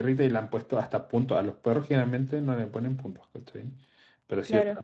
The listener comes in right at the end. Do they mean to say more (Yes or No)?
No